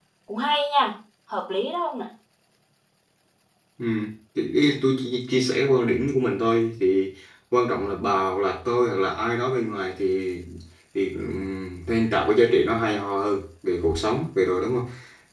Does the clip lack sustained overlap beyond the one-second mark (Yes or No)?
Yes